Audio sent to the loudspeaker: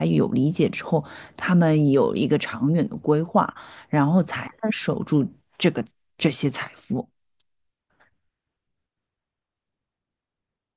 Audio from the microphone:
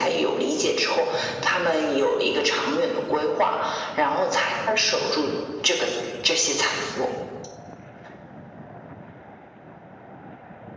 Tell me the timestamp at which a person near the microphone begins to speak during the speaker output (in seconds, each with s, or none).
none